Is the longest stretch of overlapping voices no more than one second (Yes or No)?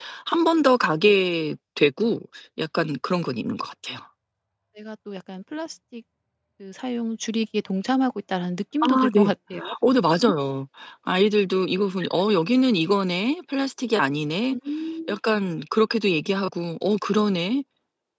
Yes